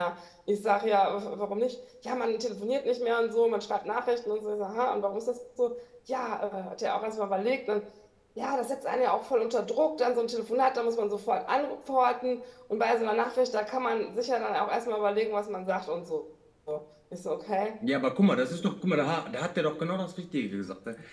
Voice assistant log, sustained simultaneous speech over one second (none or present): none